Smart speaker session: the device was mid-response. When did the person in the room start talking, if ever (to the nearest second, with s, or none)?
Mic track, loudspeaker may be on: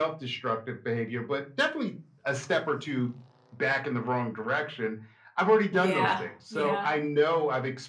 6 s